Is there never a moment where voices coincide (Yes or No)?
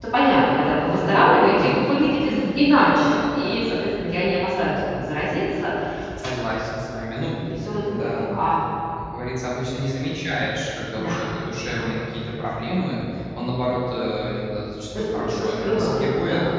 No